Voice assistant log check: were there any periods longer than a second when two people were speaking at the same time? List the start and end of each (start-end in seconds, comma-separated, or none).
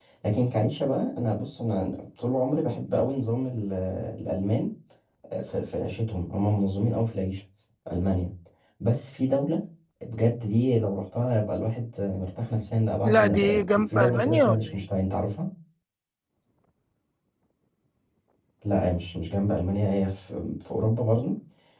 13.0-14.9